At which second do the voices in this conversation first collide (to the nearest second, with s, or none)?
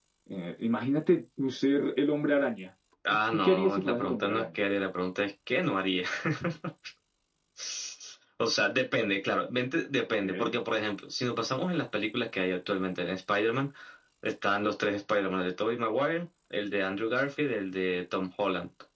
3 s